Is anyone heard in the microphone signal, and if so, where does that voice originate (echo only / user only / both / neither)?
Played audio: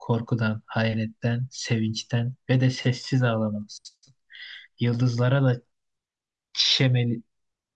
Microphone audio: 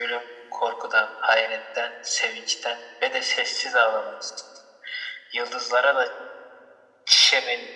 echo only